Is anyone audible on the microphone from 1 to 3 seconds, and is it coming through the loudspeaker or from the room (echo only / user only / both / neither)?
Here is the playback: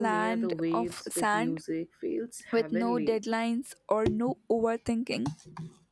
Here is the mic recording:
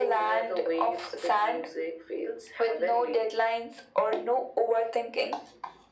echo only